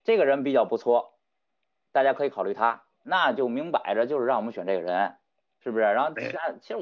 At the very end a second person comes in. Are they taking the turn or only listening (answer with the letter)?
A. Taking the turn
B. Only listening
B